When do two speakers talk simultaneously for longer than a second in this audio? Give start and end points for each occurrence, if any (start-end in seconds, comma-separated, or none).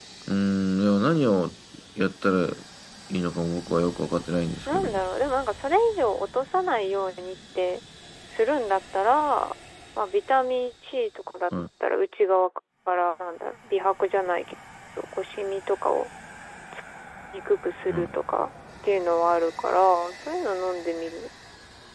none